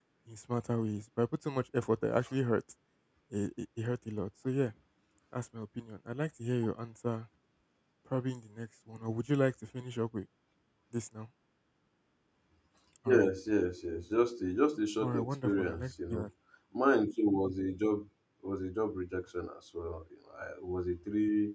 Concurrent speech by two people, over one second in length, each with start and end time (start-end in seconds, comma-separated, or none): 15.0-16.3